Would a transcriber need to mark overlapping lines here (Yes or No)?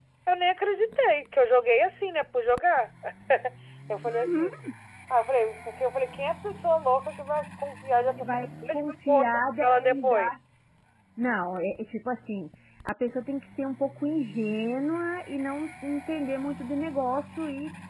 Yes